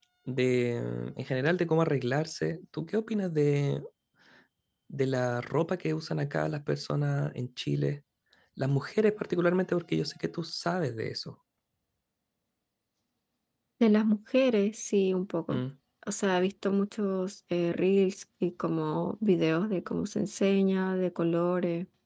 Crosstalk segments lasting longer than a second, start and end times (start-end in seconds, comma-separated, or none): none